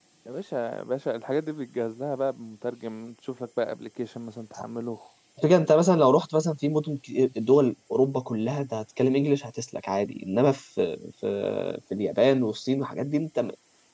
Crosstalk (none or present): none